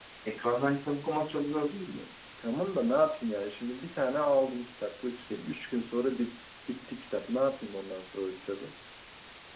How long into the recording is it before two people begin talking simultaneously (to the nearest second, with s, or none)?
none